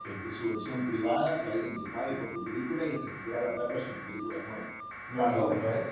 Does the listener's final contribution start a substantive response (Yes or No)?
Yes